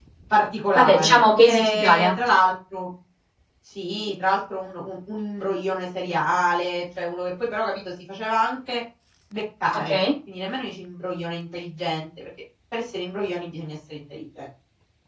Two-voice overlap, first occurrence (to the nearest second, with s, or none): 1 s